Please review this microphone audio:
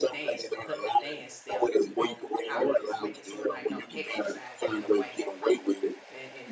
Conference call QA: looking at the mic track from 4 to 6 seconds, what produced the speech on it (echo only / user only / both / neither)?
both